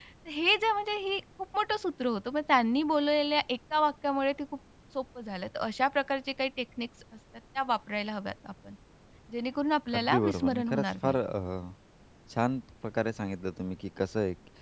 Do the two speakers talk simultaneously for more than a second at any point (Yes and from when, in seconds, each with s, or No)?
Yes, from 9.9 s